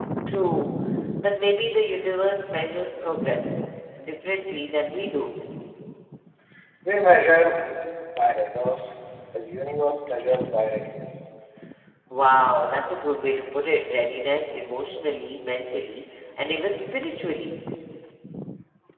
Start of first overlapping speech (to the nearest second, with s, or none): none